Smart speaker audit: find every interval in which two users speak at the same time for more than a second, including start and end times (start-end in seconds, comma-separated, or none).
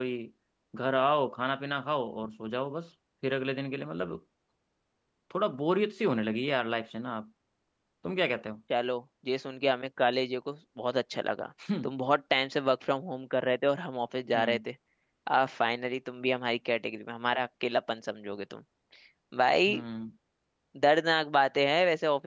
none